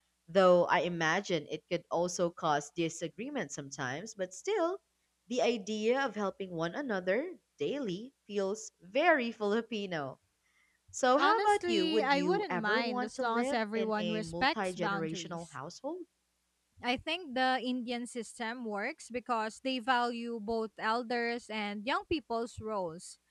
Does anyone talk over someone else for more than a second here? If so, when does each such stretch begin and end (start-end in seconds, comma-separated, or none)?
11.2-15.4